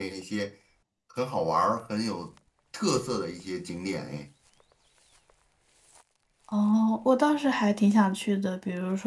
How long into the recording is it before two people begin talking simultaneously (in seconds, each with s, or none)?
none